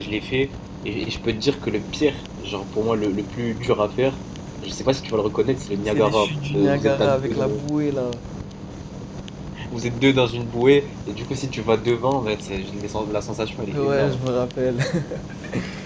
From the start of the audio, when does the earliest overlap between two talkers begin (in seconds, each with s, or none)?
5.8 s